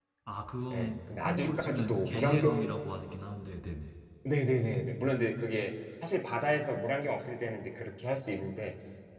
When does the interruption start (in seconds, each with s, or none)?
0.7 s